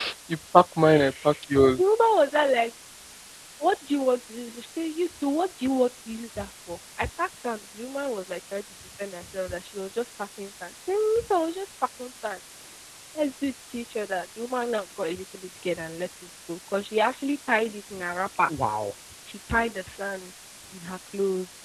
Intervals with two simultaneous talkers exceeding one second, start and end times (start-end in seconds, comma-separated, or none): none